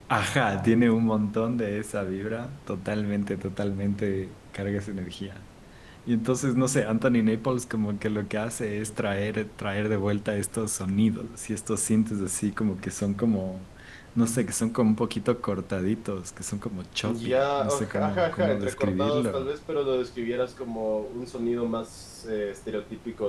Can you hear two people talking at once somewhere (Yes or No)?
Yes